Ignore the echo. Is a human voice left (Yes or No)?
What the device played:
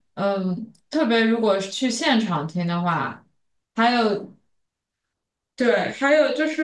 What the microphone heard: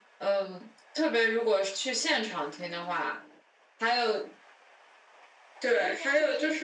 Yes